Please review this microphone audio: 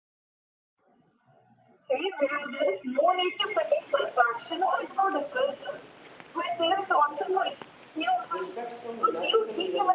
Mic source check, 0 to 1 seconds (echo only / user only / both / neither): neither